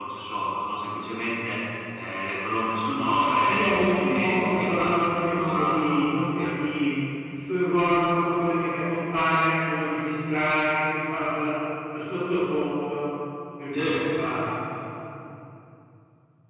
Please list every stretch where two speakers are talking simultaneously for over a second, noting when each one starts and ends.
3.5-5.9

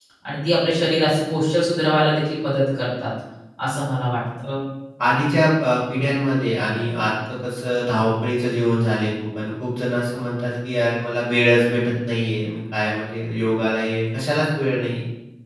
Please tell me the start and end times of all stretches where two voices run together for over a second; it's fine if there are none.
none

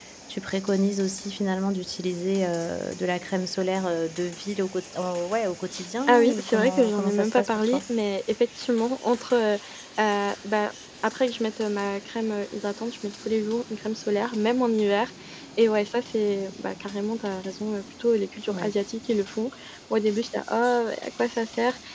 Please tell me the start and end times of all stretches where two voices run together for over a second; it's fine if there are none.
6.1-7.8

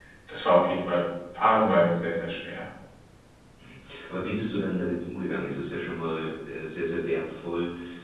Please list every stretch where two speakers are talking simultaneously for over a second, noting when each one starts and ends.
none

